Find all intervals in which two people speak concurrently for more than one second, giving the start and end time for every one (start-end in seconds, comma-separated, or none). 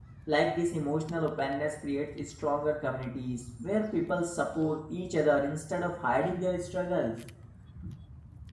none